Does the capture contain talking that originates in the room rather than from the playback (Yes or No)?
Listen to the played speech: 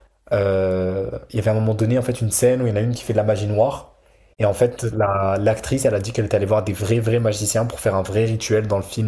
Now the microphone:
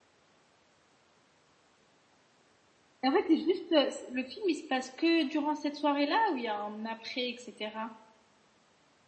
Yes